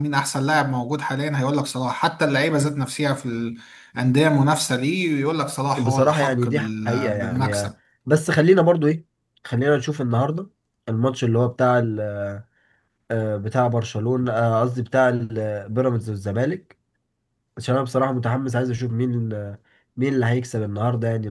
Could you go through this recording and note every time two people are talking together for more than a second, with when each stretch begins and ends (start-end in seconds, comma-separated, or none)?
5.8-7.7